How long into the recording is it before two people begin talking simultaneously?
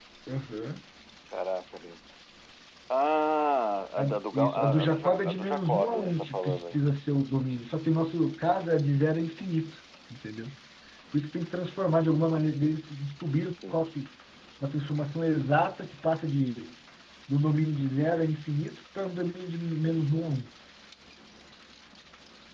4.0 s

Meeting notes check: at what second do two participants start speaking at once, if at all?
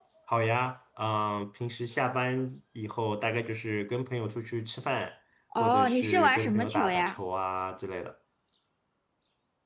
5.6 s

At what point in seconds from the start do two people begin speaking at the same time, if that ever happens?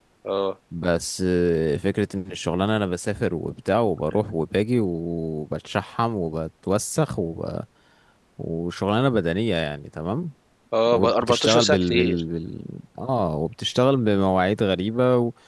10.9 s

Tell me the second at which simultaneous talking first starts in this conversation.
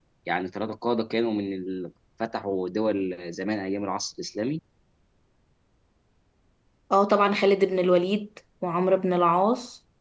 none

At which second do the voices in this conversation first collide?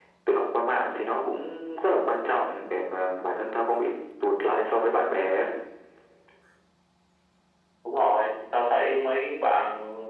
none

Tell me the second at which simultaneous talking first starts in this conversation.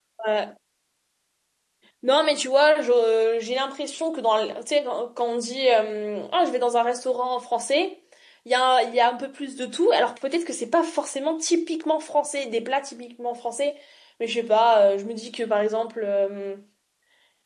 none

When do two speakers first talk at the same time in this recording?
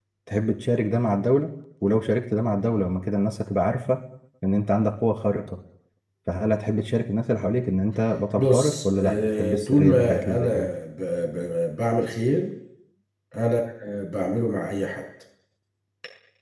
8.4 s

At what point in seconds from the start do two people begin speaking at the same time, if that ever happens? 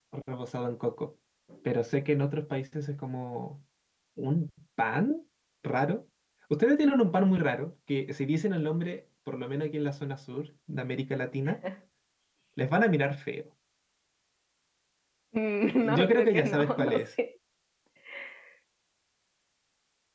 15.8 s

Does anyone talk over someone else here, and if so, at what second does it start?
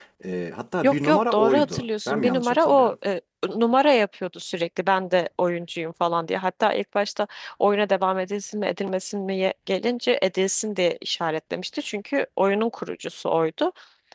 0.8 s

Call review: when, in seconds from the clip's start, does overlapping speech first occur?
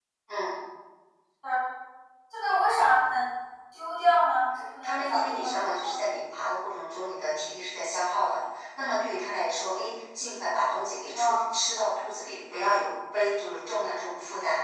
4.8 s

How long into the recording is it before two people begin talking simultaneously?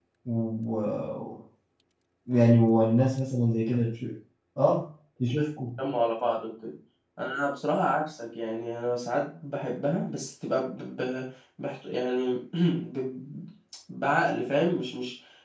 none

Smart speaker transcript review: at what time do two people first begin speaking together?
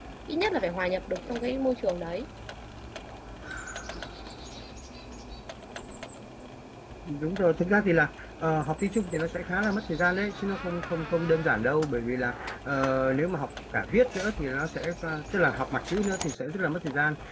none

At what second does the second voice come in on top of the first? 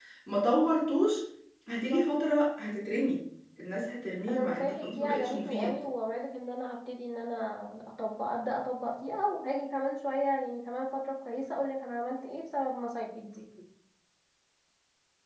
4.3 s

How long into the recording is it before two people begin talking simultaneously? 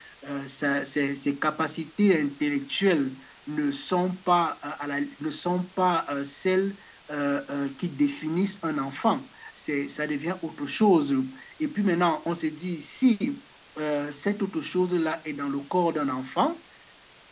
none

